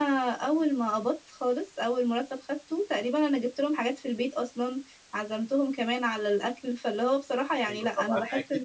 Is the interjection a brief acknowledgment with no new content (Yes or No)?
No